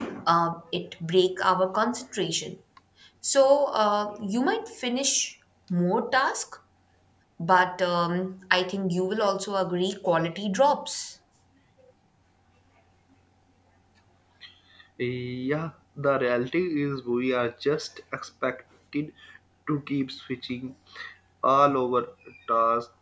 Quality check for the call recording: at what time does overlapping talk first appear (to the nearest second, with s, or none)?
none